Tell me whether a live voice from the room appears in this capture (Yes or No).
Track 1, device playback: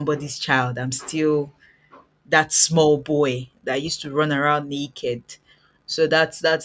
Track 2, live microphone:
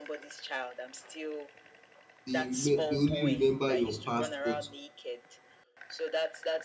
Yes